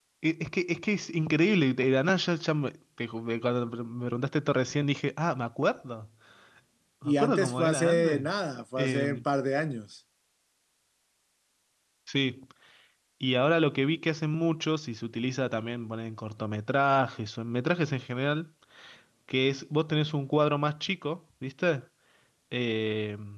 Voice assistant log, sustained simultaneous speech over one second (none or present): present